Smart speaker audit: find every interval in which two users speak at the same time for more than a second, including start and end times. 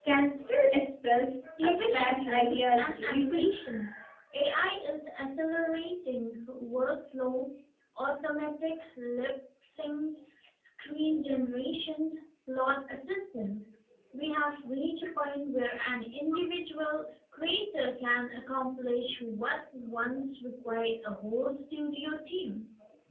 1.6-3.5

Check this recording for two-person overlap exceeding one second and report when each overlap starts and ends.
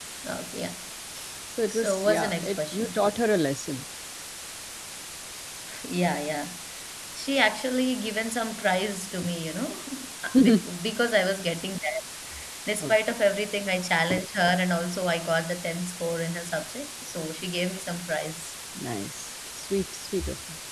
1.7-3.0

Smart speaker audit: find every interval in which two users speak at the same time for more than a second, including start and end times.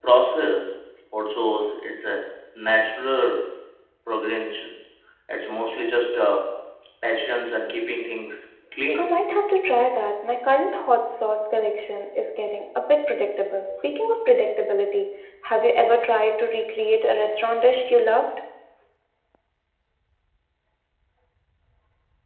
none

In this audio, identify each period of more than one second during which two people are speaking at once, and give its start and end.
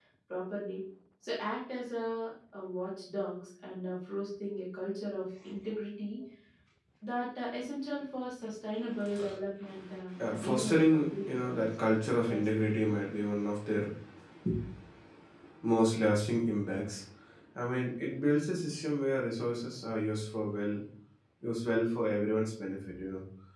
10.2-11.7

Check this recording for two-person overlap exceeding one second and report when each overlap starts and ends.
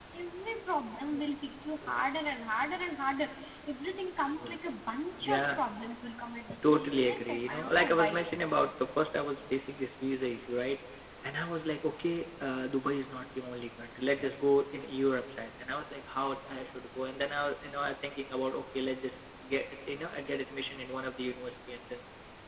6.6-8.1

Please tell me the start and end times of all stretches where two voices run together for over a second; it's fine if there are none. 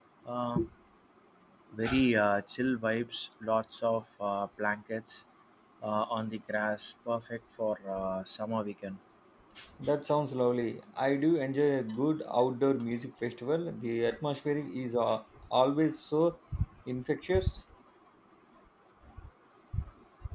none

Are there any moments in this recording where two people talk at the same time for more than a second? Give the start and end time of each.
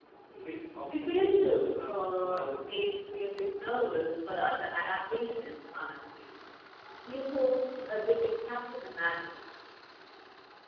0.9-2.9

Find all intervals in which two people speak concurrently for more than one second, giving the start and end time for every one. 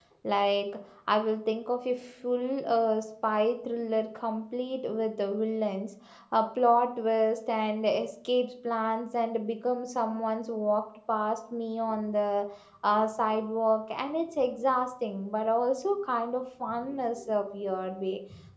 none

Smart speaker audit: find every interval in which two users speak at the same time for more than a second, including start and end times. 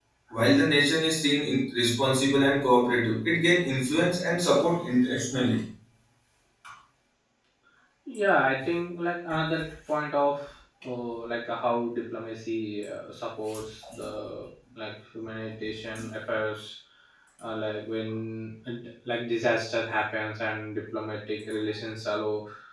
none

